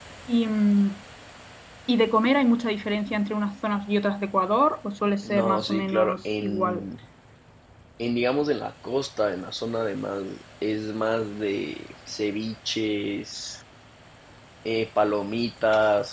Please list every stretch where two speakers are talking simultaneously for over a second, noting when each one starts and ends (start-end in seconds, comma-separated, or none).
5.3-6.8